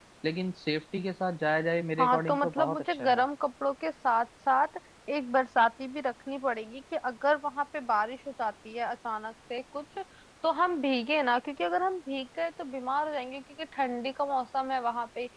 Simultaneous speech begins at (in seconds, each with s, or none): 2.0 s